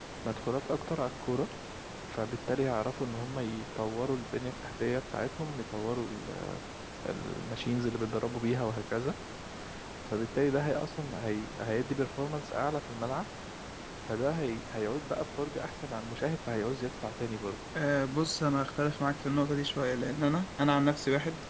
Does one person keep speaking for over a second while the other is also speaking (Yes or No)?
No